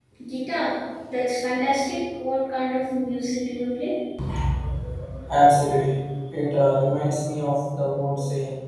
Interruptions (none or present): none